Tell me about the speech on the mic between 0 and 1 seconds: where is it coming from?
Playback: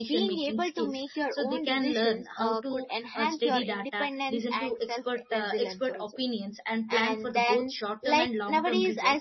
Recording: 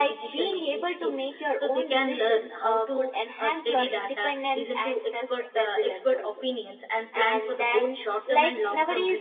echo only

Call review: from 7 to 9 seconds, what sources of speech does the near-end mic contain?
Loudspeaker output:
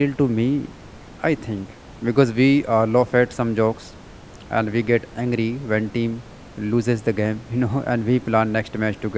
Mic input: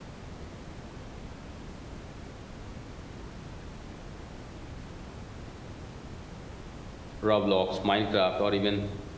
user only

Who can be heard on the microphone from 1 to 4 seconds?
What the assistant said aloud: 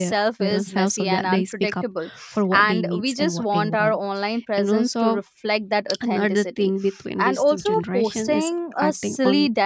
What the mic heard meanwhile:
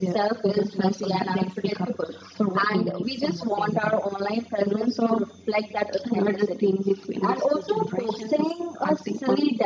echo only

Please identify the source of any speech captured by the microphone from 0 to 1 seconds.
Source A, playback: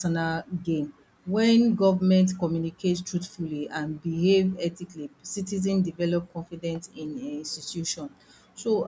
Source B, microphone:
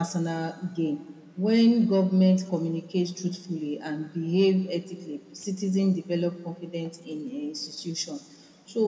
echo only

